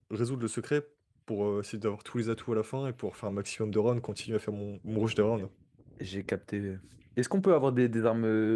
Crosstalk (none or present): none